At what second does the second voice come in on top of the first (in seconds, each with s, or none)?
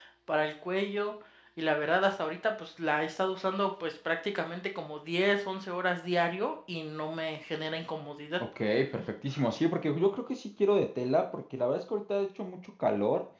none